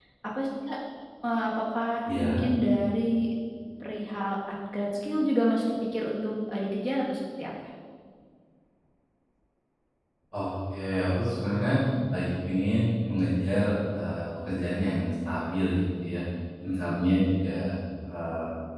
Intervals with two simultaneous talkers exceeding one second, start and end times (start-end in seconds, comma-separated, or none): none